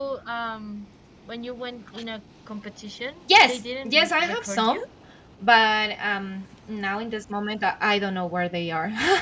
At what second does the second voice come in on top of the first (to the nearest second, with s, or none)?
3 s